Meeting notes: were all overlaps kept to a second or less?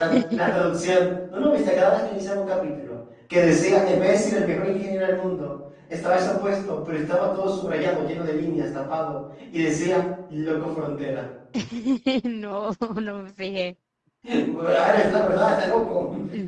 Yes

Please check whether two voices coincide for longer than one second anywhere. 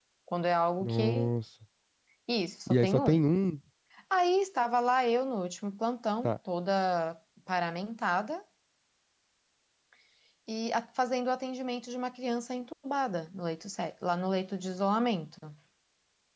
No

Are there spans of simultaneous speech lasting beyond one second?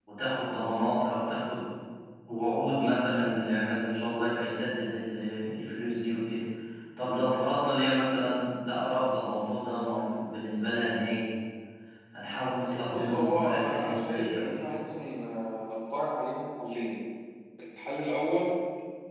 Yes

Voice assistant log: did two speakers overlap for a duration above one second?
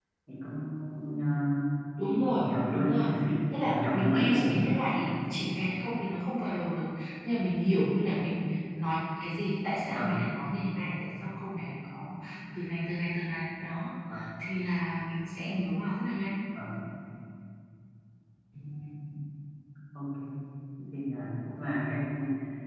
Yes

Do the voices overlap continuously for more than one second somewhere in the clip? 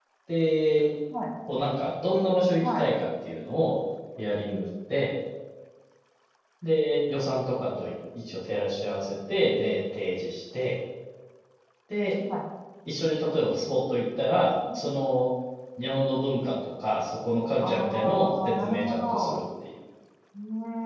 Yes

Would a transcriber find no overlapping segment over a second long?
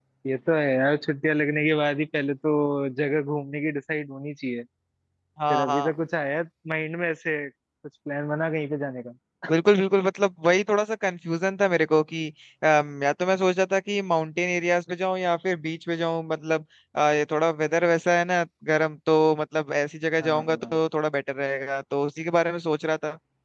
Yes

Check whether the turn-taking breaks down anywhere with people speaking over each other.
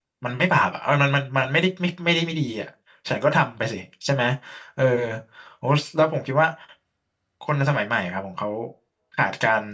No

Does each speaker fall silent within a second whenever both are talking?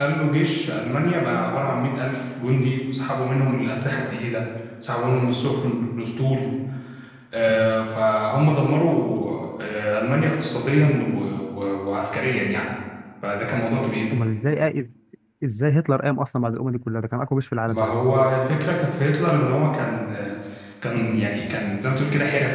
Yes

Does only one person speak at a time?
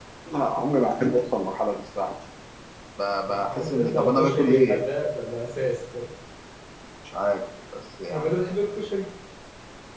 No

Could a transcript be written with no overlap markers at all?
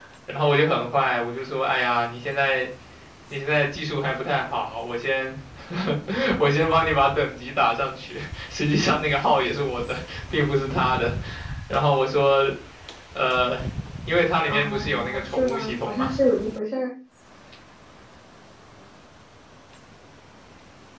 No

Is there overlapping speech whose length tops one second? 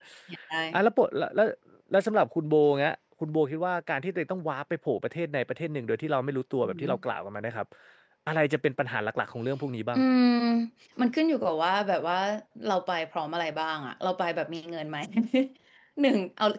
No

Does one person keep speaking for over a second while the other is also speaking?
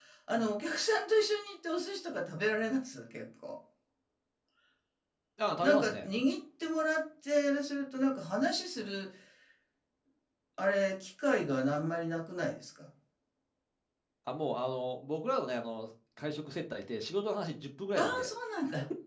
No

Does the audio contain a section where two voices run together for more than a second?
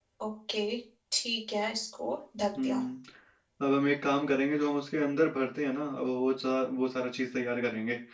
No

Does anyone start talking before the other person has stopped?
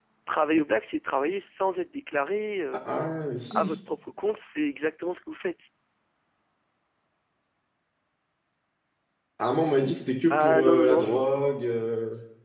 Yes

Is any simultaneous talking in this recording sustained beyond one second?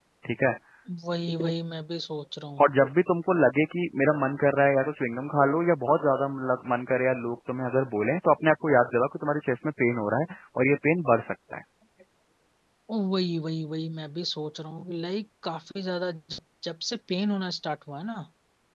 No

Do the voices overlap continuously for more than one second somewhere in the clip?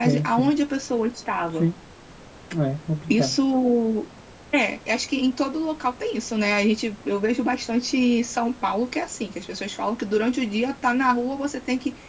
No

